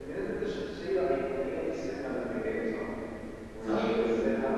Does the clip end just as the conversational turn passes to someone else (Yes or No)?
No